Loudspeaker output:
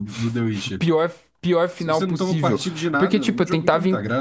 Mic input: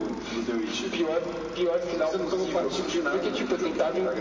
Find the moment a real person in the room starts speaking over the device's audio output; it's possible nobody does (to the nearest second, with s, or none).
none